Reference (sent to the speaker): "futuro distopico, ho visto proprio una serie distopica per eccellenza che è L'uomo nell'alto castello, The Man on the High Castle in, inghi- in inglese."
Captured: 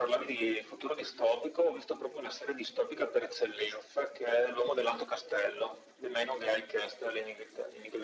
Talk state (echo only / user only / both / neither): echo only